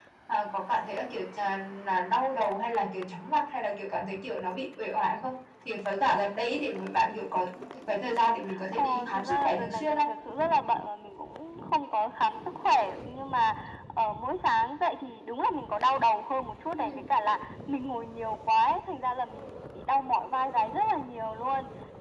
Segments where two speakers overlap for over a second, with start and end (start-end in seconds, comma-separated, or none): 8.7-10.1